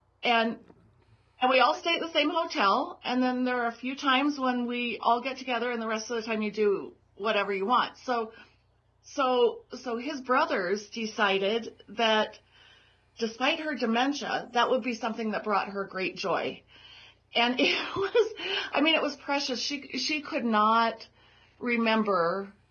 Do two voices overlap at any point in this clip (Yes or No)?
No